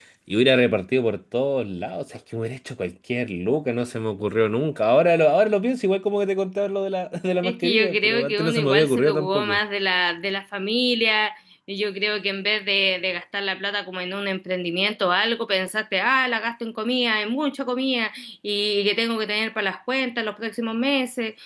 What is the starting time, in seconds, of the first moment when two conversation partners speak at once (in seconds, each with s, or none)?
7.4 s